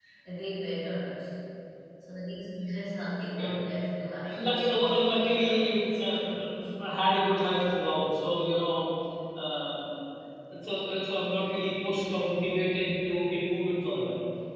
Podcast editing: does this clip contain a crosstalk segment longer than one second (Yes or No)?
Yes